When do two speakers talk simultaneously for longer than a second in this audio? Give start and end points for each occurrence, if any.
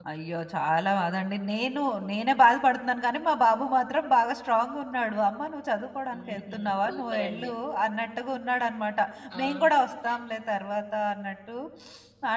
6.1-7.5

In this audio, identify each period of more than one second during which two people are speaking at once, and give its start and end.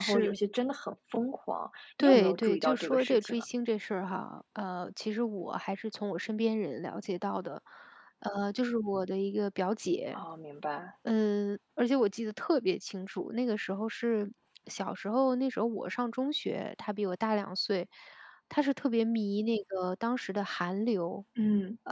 2.0-3.4

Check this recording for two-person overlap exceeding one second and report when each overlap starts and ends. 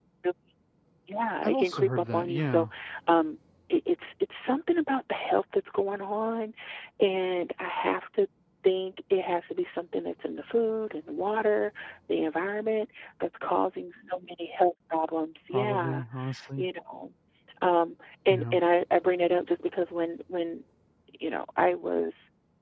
1.4-2.7

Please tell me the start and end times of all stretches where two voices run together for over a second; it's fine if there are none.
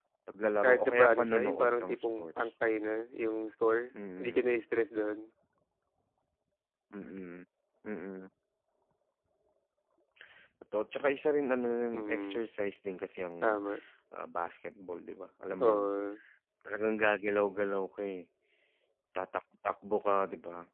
0.6-2.5

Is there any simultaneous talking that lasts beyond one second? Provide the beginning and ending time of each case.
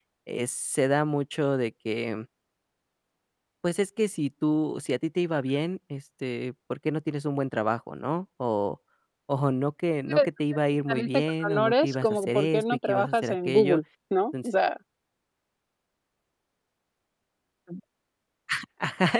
10.9-13.8

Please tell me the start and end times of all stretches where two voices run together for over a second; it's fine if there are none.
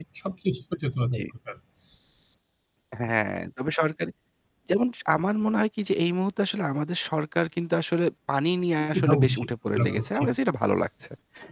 9.0-10.3

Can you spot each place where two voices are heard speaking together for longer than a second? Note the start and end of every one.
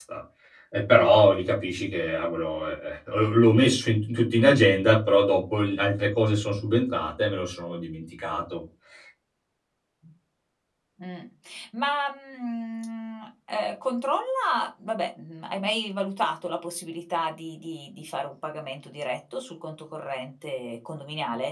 none

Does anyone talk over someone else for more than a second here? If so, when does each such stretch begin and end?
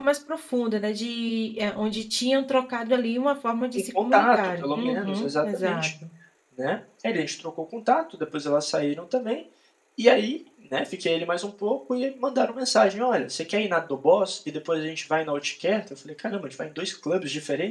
3.8-5.9

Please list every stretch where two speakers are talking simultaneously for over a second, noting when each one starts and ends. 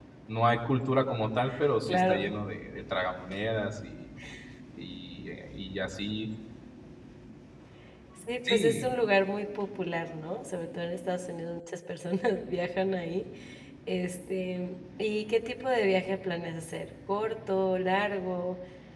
none

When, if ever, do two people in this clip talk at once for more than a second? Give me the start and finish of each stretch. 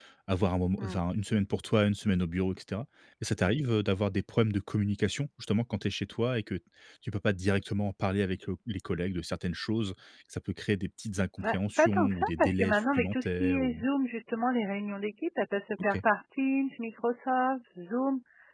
11.4-13.9

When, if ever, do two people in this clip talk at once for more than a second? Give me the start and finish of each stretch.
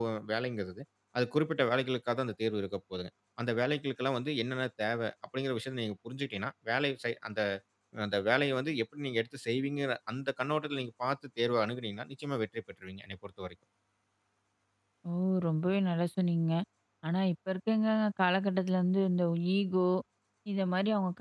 none

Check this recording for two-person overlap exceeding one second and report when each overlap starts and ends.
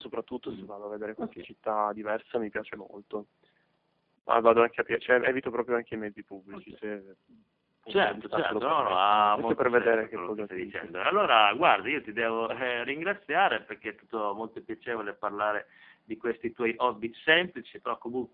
7.9-11.3

